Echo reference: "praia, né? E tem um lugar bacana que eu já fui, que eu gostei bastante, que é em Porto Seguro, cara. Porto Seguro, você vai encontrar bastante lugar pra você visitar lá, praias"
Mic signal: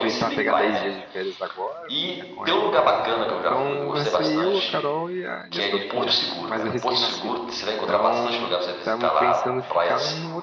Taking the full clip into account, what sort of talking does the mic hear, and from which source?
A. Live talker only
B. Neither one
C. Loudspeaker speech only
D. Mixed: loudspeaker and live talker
D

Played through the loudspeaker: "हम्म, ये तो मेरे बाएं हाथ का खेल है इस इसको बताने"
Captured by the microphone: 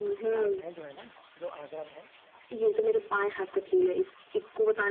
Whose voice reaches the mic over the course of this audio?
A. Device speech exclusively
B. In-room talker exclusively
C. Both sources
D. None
C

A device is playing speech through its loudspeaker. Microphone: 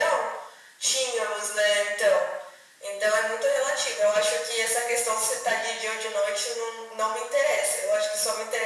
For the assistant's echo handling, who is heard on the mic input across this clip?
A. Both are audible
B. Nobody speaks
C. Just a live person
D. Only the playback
D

